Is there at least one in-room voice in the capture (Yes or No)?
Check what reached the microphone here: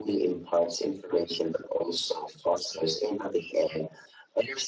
No